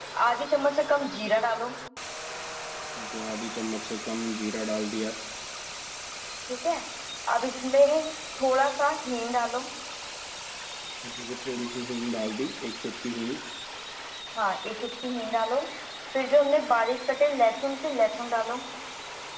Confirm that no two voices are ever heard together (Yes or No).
Yes